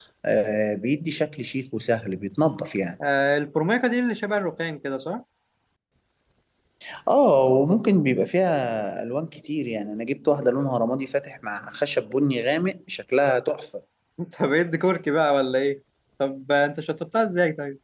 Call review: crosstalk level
none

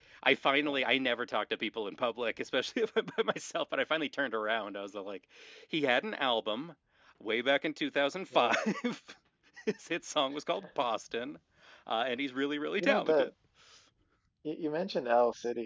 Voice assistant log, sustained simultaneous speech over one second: none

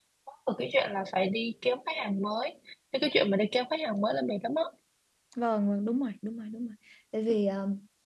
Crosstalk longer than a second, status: none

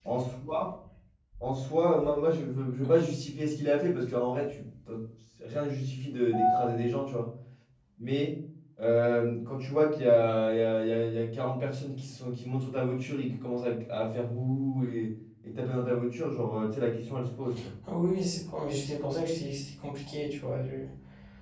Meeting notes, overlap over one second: none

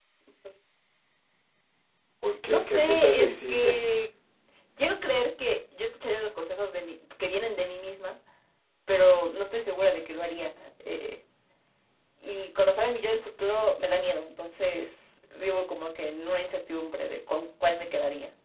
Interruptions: present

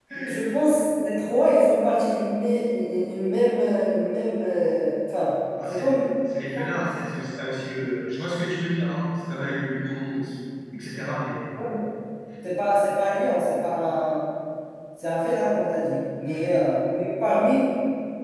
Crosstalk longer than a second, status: none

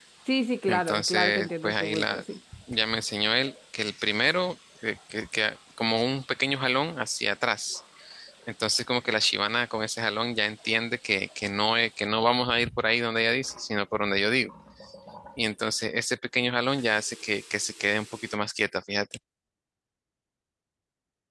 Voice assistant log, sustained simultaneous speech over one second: present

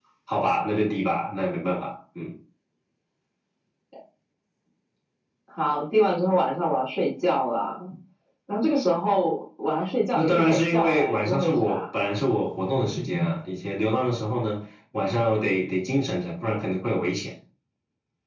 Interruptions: present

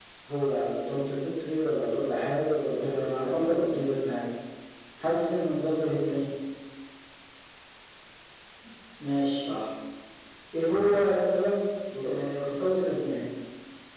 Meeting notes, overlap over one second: present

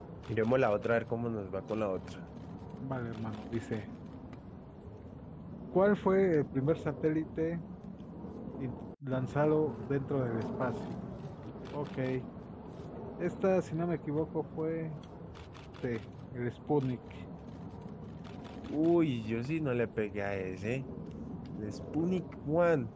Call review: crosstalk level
none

